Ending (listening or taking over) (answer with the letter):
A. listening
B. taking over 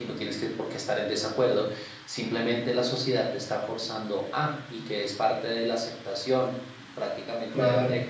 A